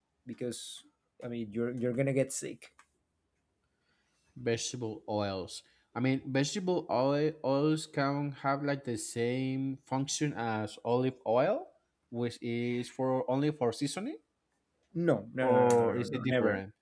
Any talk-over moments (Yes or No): Yes